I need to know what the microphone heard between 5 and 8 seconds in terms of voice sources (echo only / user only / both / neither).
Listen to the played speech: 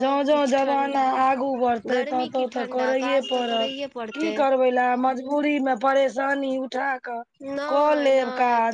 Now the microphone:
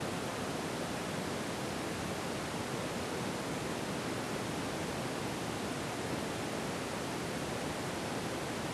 neither